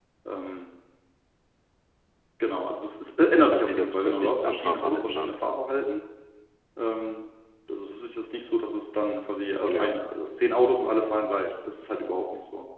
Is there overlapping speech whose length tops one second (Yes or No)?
Yes